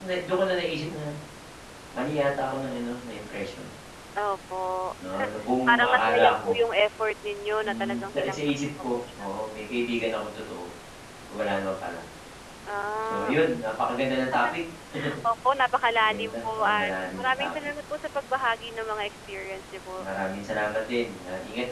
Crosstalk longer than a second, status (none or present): present